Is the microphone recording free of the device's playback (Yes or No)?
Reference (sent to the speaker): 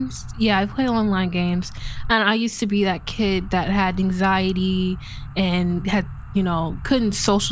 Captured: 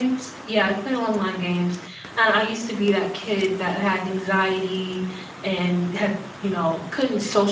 No